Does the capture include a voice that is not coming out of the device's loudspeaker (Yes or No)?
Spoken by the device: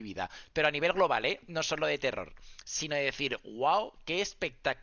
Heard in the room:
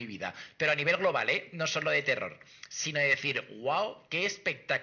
No